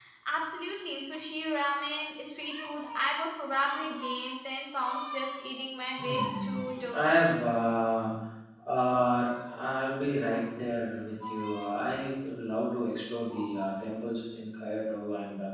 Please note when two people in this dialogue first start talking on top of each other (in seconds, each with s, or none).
6.0 s